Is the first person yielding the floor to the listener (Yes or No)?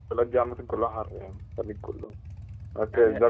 No